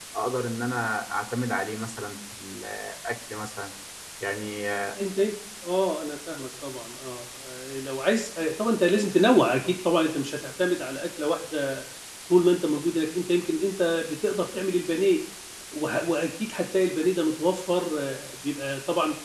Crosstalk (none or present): none